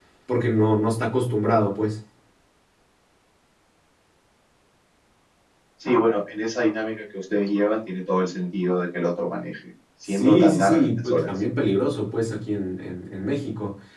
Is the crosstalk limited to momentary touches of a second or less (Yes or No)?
No